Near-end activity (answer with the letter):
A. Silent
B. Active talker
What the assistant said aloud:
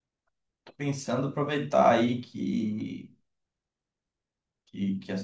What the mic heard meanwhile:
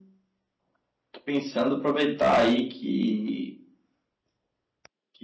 A